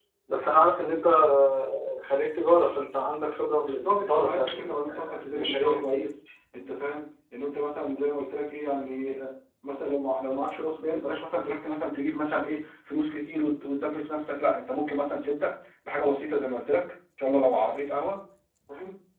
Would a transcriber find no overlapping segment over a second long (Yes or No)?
No